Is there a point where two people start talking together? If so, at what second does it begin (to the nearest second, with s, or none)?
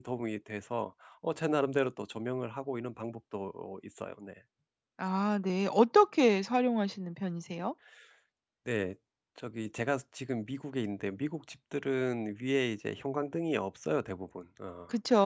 none